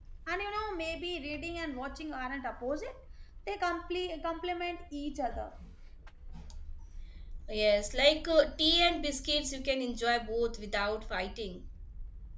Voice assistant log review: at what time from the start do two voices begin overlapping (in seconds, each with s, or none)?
none